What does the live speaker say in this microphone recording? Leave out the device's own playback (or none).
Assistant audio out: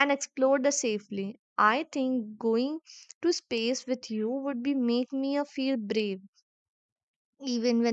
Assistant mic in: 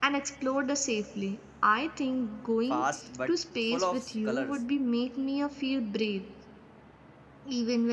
fast but full of colors.